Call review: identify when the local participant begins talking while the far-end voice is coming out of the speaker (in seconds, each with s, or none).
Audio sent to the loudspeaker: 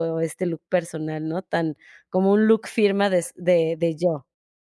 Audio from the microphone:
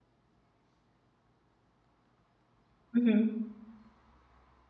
3.0 s